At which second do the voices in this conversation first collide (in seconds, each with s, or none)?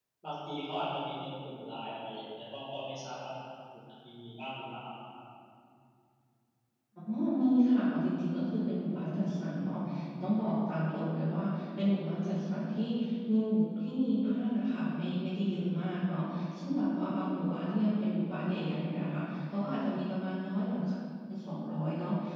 none